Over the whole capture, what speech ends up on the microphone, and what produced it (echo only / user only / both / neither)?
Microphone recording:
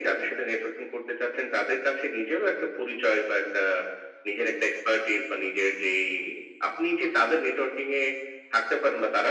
echo only